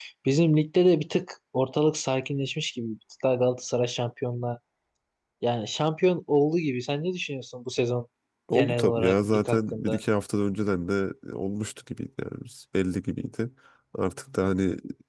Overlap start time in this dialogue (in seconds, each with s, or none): 8.5 s